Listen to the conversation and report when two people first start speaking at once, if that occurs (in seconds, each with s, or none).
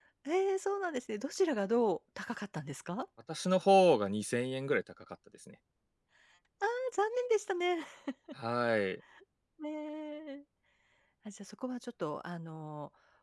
none